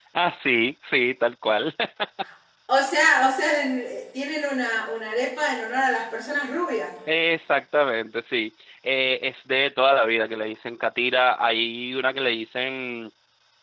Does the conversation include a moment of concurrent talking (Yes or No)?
No